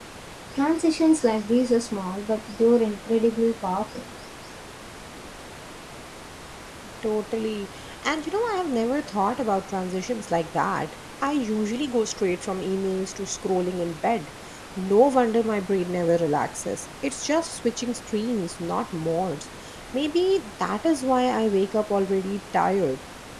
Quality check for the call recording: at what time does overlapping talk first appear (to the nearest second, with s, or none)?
none